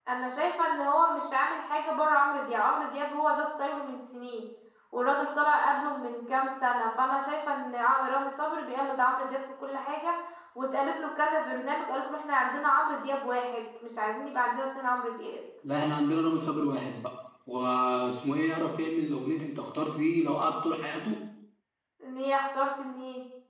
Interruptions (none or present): none